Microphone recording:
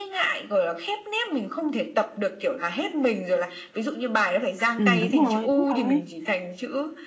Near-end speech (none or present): present